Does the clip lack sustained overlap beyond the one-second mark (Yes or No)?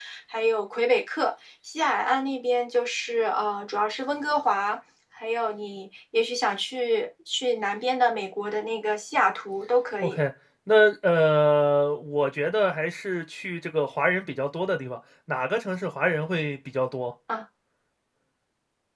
Yes